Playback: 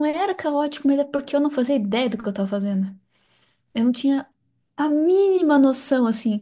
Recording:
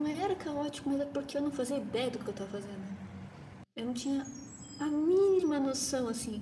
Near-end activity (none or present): none